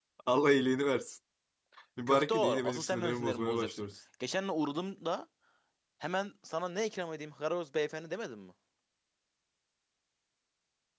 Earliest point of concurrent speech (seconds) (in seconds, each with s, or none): 2.1 s